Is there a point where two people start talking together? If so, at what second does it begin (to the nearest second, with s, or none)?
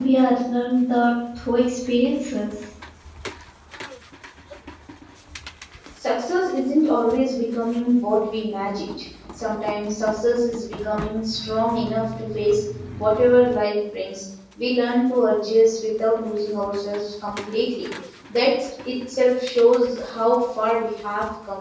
none